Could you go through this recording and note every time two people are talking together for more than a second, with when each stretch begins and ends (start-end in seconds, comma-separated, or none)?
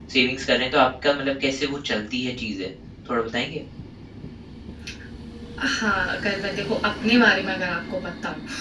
none